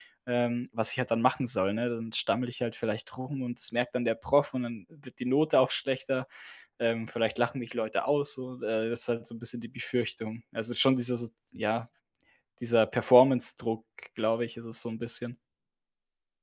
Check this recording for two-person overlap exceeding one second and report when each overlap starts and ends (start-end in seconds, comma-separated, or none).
none